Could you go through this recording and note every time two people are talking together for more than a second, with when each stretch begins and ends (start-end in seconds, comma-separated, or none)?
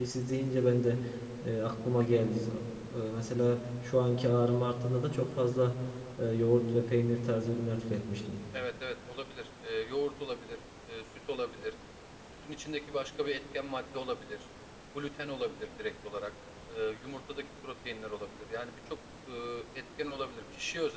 none